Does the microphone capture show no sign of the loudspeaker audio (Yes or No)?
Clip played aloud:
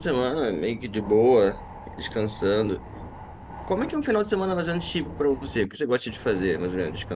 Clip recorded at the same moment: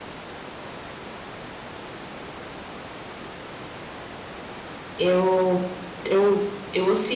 Yes